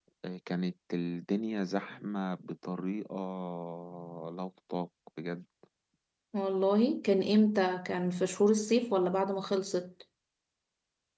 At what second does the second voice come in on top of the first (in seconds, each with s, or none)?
none